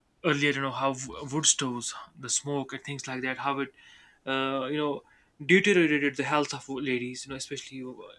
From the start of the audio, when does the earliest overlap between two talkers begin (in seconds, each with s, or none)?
none